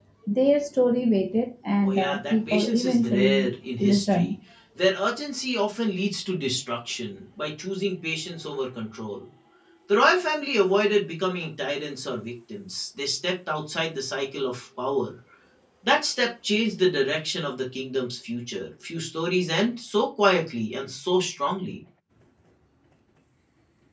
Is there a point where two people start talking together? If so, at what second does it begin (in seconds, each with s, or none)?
1.8 s